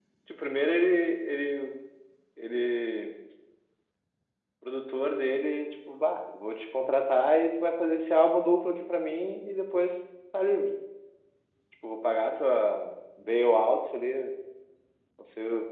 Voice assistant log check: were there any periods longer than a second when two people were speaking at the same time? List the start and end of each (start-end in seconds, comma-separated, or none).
none